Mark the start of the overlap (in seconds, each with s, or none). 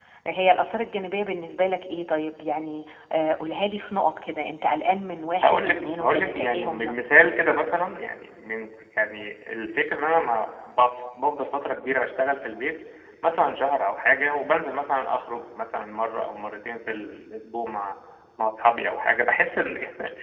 5.4 s